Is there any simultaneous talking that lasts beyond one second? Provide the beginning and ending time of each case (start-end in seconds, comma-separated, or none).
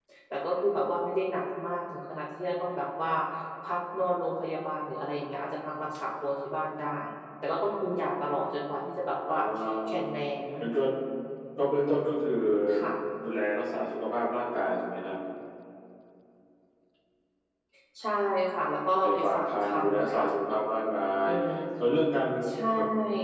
19.0-20.2